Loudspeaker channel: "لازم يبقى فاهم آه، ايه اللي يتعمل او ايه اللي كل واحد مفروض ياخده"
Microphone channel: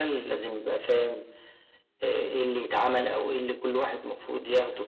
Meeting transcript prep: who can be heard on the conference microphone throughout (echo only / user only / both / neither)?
echo only